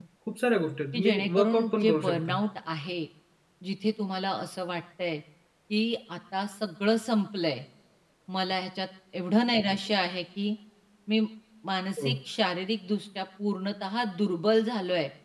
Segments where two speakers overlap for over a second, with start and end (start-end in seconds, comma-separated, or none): 0.9-2.4